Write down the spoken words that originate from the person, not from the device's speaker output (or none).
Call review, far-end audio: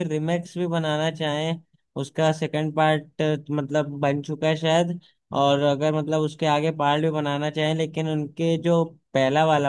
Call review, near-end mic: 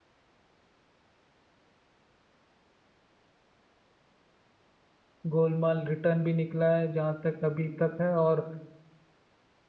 गोलमाल रिटर्न भी निकला है जहाँ तक अभी तक है और